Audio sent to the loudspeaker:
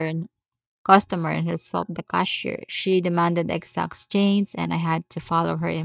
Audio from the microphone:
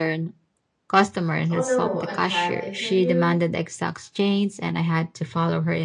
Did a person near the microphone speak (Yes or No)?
Yes